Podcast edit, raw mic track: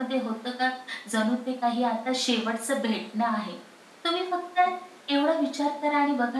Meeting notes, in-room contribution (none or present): none